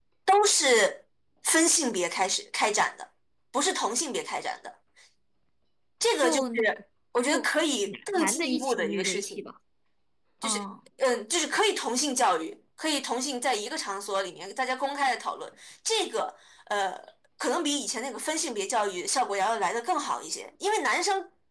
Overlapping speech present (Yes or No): Yes